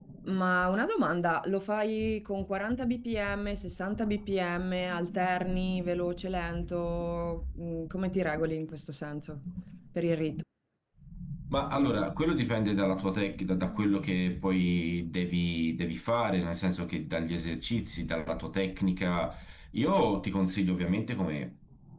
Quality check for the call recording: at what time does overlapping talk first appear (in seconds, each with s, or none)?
none